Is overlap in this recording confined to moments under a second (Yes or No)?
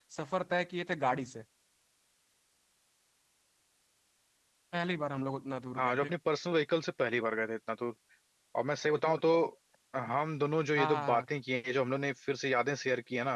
Yes